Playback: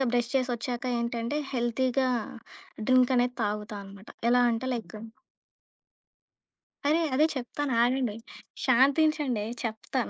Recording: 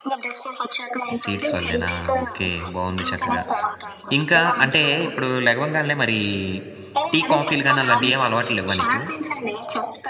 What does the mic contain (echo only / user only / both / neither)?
both